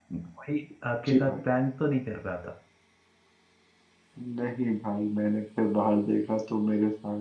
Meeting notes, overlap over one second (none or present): none